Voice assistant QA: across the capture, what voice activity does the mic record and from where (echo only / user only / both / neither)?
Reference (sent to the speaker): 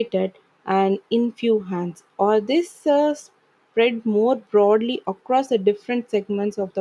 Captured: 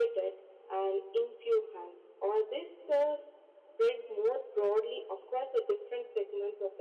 echo only